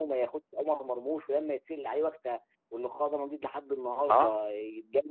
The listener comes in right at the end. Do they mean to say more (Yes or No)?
No